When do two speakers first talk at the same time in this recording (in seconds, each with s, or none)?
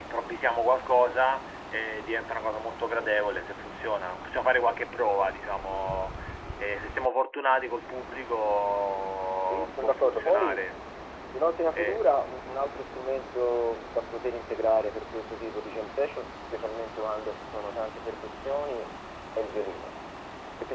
9.4 s